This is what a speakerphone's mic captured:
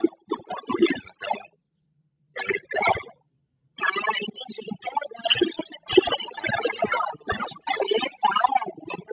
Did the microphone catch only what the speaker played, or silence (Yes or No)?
Yes